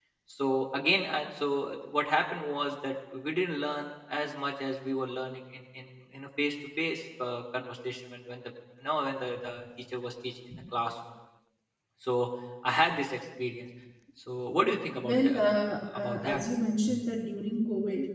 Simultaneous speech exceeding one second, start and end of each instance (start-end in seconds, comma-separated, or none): 15.0-16.4